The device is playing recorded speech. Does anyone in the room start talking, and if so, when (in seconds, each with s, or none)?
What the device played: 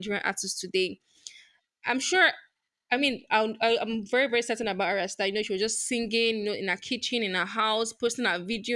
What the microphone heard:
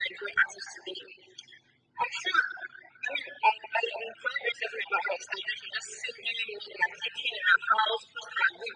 none